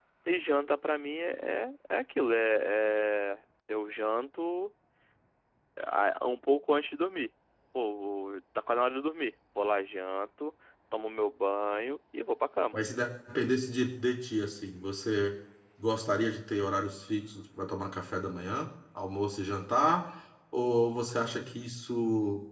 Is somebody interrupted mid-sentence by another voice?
No

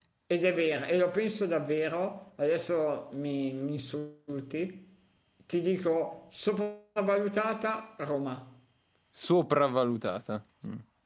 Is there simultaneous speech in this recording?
No

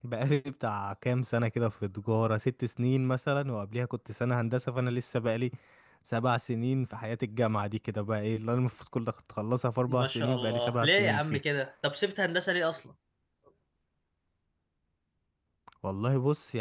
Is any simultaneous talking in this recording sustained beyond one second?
Yes, from 9.9 s

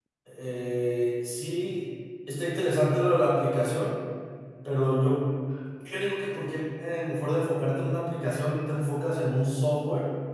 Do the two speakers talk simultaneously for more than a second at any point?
No

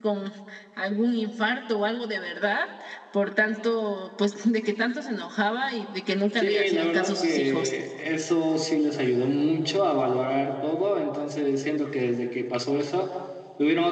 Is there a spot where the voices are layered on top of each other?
Yes, from 6.4 s

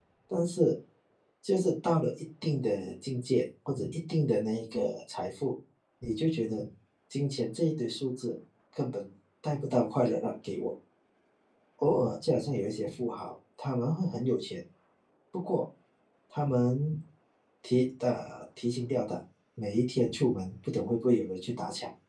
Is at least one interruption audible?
No

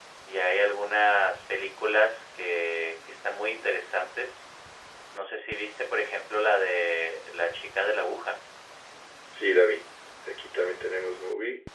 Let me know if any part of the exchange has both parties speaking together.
No

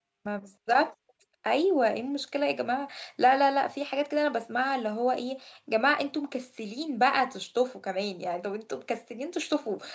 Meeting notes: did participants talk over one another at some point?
No

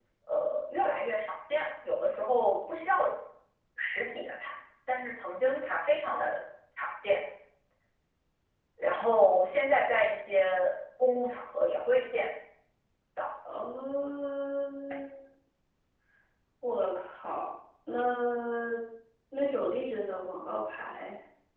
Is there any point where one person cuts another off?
No

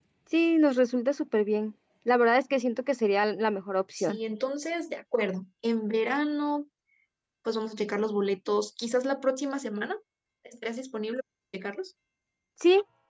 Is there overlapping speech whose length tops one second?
No

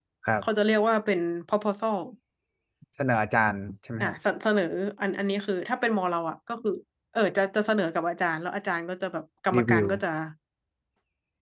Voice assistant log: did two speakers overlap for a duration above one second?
No

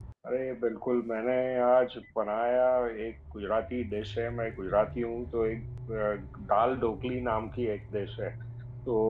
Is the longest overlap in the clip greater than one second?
No

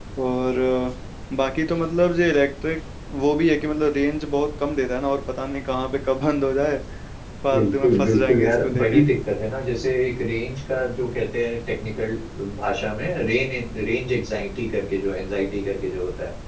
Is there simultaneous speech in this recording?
Yes, from 7.5 s

